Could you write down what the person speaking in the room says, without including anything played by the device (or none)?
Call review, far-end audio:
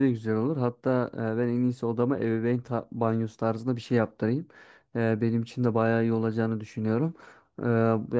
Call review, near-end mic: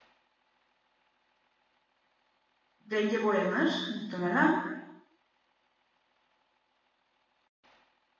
renge boyanır muhtemelen.